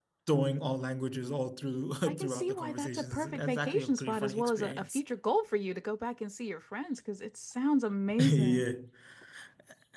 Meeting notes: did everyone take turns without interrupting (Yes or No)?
No